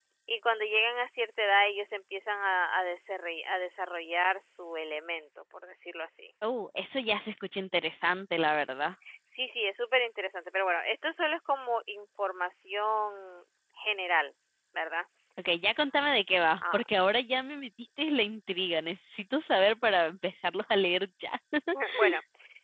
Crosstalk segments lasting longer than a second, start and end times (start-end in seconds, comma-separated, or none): none